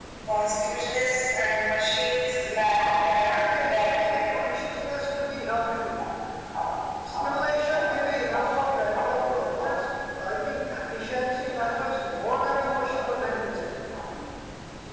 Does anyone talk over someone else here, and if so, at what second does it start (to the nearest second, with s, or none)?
3 s